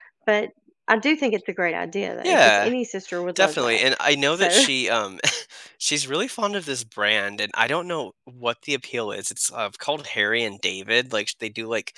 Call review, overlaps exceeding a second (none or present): none